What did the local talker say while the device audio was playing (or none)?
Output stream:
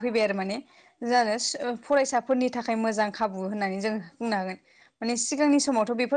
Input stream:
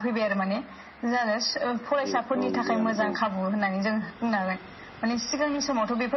जेबो औ गैयामोन औ